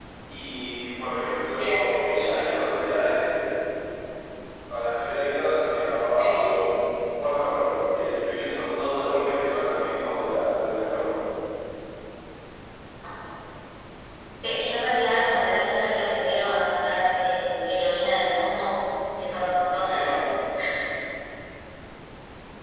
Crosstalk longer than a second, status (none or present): none